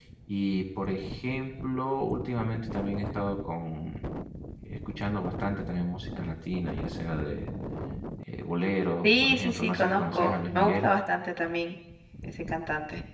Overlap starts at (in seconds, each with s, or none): 9.0 s